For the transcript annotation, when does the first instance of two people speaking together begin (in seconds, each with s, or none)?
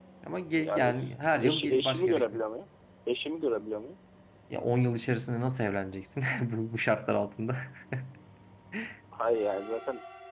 0.6 s